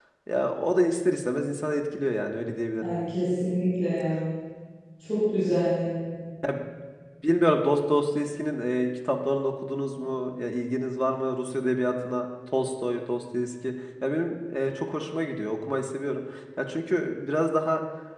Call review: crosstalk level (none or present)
none